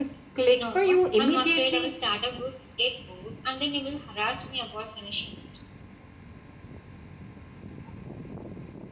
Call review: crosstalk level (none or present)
present